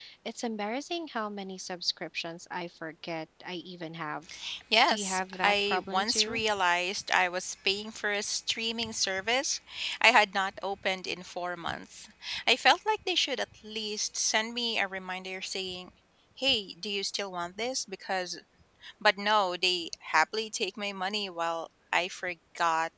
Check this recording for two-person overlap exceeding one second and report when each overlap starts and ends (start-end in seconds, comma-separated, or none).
4.9-6.4